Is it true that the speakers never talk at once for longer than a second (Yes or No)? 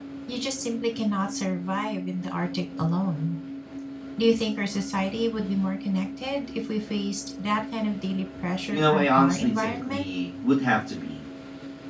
No